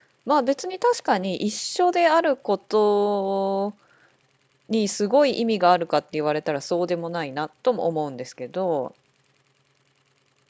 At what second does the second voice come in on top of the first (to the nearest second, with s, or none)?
none